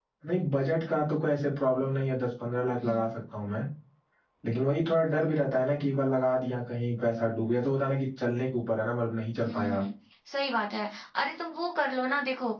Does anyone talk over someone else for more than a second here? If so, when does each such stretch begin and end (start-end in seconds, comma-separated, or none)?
none